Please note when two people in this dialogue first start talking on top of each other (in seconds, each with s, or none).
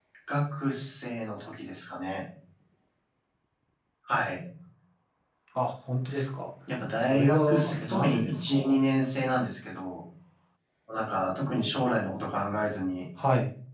7.0 s